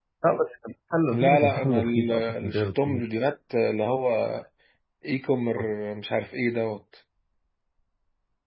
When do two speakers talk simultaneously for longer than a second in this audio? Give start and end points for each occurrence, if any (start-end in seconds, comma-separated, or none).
1.1-3.0